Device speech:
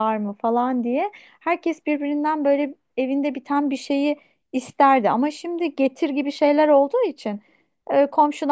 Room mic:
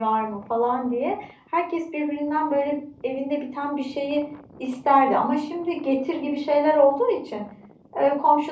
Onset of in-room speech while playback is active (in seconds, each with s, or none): none